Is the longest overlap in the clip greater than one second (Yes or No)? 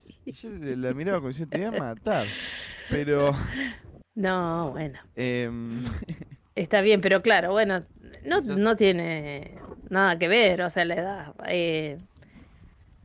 No